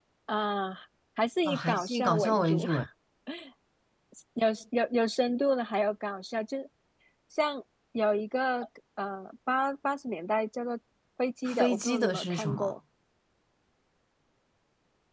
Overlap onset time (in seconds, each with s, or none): 1.4 s